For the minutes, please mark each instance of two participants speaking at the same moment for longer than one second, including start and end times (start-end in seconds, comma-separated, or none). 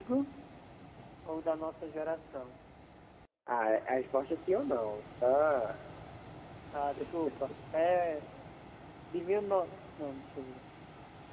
none